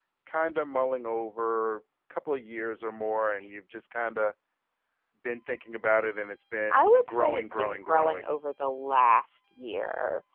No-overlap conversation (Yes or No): No